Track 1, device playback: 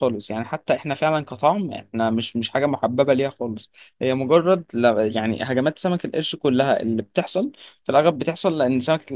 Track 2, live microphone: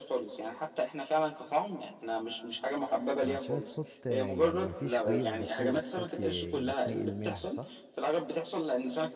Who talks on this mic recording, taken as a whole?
both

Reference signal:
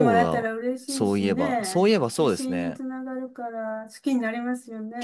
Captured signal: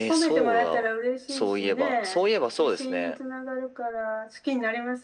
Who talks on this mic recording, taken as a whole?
echo only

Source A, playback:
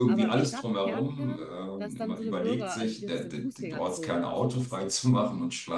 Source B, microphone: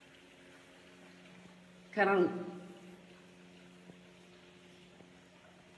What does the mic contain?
user only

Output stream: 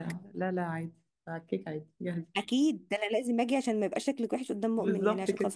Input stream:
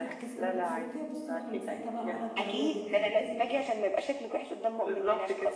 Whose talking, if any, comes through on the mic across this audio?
both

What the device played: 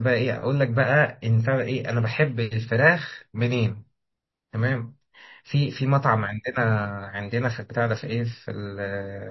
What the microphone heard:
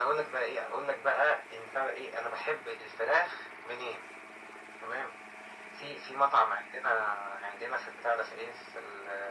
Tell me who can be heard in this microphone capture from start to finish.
echo only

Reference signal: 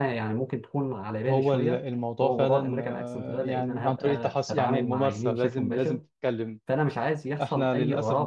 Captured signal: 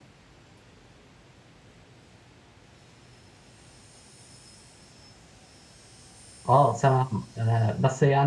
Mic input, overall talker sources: user only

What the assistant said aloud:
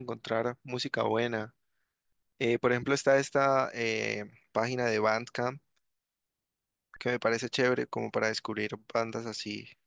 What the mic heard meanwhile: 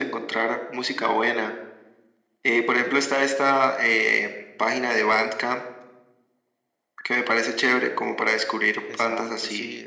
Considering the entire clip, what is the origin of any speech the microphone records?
both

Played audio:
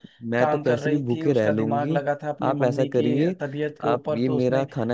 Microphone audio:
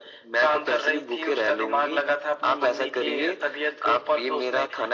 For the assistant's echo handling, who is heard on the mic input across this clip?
echo only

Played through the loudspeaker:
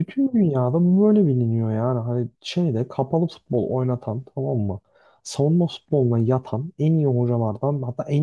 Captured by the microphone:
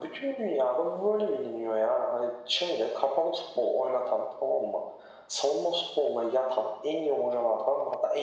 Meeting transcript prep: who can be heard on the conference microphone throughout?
echo only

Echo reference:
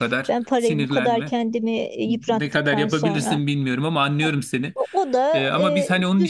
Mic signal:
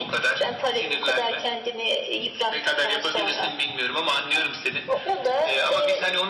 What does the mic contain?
echo only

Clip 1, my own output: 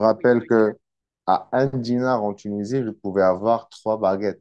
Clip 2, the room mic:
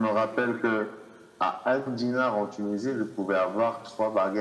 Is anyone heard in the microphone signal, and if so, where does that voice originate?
echo only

